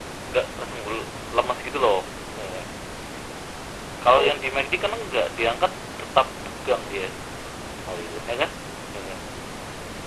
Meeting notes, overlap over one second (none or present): none